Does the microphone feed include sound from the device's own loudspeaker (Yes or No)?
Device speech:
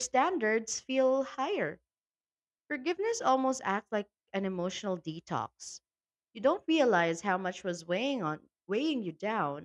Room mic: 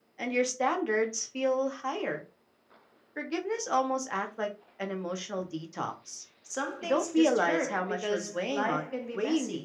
Yes